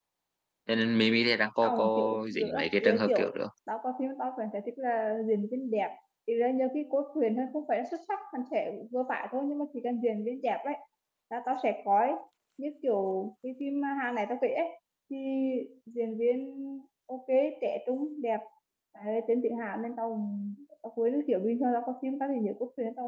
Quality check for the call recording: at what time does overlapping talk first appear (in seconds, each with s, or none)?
1.6 s